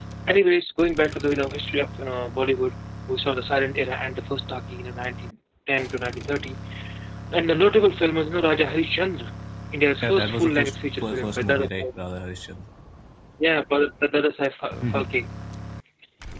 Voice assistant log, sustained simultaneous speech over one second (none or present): present